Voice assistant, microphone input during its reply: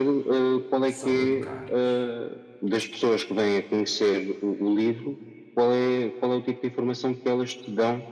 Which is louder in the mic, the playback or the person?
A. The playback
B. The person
A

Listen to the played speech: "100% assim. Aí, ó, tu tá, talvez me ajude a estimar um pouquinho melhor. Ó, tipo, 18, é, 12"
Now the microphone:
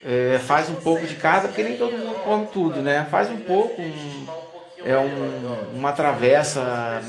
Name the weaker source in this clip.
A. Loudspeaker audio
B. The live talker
A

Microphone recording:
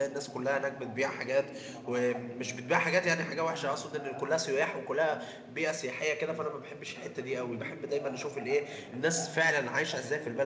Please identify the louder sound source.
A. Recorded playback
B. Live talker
B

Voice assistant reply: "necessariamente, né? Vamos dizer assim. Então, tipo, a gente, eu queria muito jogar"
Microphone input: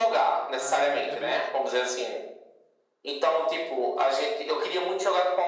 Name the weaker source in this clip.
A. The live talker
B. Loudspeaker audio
A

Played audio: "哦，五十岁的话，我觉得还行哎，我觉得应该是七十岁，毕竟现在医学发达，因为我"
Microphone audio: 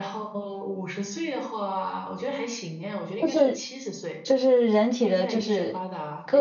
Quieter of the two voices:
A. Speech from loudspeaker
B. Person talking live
A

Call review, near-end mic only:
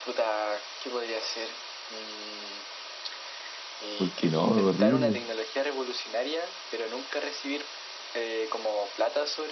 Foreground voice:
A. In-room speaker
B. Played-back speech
A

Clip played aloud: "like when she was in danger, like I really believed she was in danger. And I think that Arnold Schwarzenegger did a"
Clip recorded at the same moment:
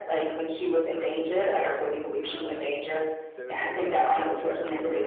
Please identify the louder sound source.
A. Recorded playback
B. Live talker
A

